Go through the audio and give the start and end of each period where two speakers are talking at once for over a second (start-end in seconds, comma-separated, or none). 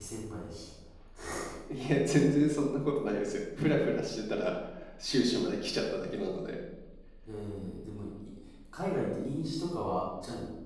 none